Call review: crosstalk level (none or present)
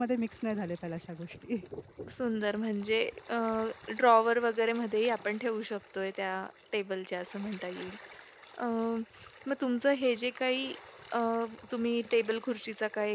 none